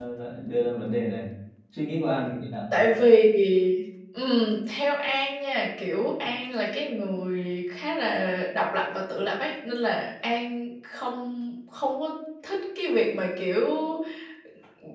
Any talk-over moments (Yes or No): No